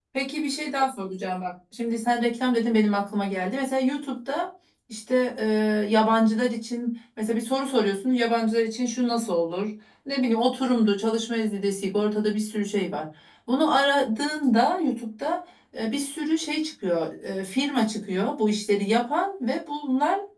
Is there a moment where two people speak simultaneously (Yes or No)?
No